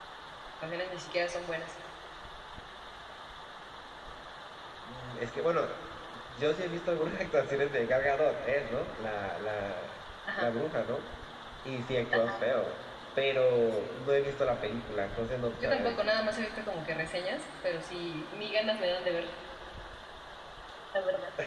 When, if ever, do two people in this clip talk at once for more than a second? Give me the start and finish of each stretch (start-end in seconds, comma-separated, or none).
none